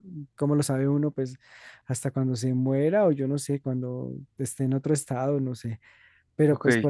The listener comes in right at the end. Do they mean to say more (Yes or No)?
No